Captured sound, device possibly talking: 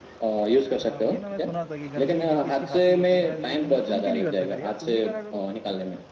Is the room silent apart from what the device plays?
No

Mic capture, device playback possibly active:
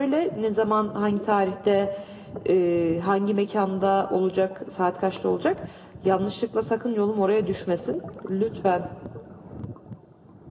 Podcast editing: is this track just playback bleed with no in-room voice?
Yes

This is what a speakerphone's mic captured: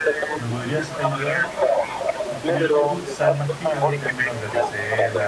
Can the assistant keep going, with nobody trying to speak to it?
No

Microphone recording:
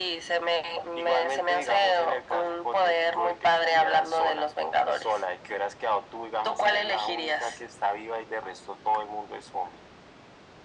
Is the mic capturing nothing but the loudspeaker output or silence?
Yes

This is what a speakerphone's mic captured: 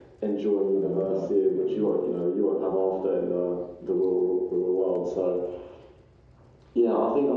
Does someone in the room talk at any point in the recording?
Yes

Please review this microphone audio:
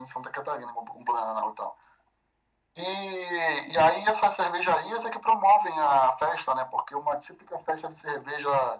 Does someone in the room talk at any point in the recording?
No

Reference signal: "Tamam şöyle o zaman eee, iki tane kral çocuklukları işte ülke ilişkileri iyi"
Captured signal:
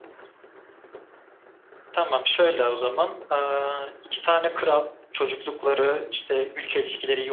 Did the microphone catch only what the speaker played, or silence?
Yes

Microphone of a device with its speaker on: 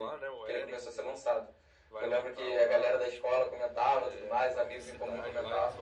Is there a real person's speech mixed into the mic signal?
Yes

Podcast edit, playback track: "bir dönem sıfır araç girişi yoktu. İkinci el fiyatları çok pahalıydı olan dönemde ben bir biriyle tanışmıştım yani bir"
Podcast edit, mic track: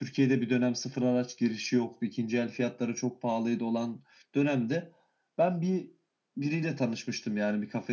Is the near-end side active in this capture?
No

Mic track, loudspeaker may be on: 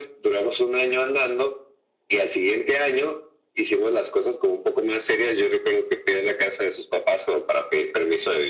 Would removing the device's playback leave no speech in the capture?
Yes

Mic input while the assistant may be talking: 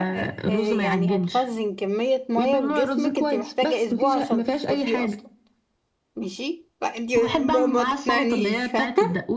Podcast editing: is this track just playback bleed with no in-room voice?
No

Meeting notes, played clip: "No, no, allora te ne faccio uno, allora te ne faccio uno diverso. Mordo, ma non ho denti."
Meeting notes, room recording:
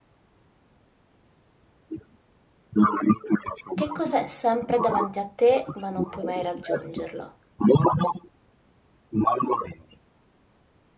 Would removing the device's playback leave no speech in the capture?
No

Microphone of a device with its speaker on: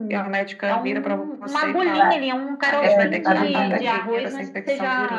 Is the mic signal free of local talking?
No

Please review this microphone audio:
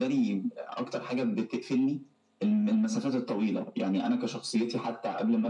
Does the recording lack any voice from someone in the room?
Yes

